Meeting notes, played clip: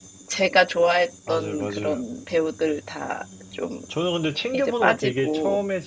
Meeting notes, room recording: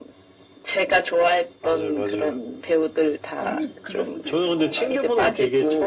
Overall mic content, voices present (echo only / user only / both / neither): both